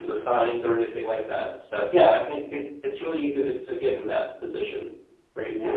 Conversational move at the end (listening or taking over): listening